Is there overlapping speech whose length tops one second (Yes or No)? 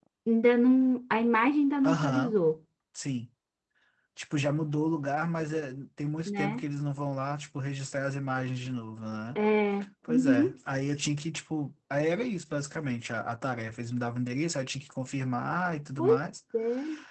No